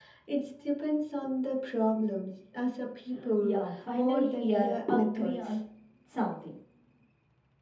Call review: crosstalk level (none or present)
present